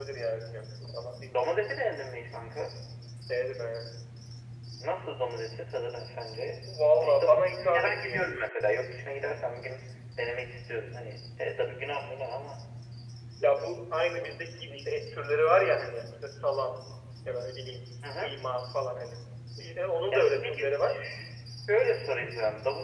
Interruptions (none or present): present